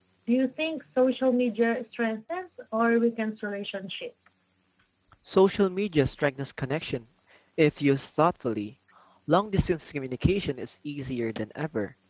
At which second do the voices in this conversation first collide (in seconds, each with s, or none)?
none